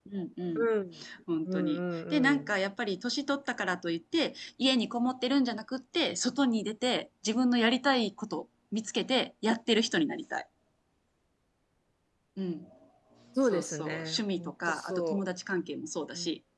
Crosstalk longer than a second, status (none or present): present